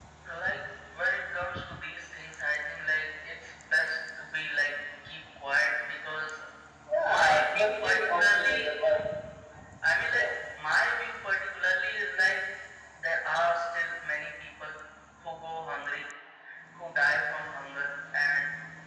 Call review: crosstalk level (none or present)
present